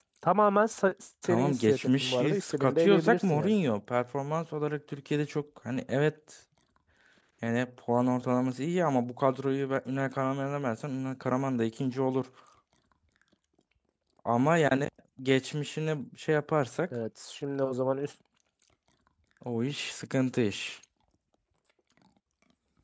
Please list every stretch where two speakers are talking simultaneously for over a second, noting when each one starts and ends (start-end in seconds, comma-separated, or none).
1.2-3.5